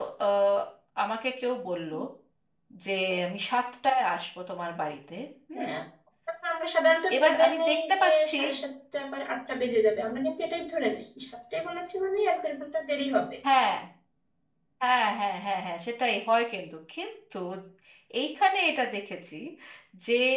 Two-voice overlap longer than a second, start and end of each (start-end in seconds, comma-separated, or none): 7.2-8.4